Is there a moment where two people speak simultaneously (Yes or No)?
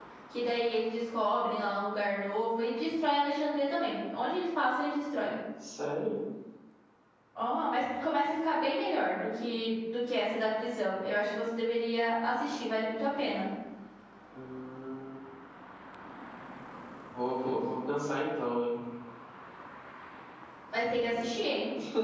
No